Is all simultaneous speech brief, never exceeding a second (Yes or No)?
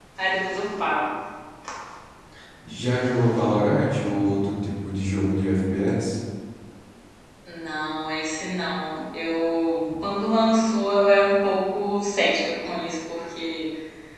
Yes